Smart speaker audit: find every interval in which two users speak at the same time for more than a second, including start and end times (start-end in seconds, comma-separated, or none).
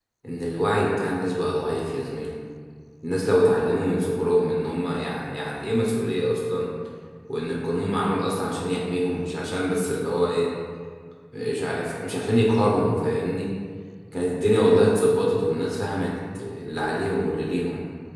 none